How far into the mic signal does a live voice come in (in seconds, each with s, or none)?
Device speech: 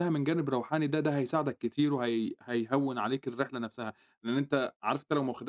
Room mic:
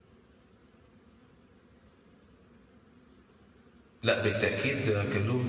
4.0 s